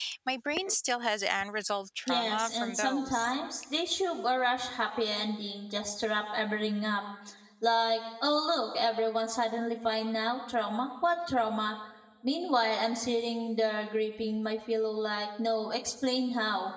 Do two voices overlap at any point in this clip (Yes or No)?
Yes